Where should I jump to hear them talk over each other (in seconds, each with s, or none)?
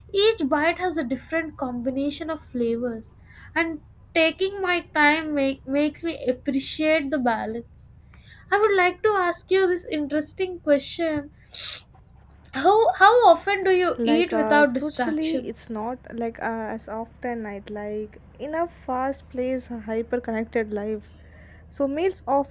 14.0 s